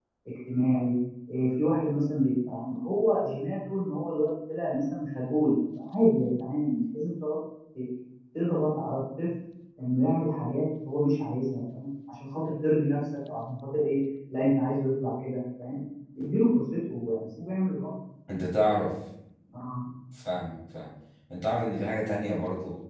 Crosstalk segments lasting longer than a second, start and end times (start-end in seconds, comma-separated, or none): none